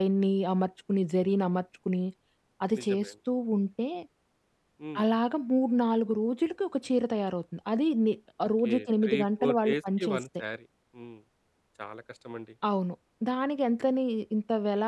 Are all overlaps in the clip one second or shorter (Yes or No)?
No